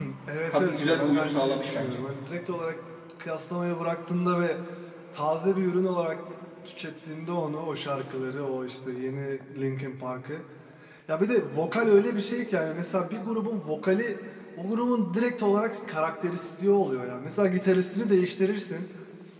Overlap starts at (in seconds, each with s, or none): 0.5 s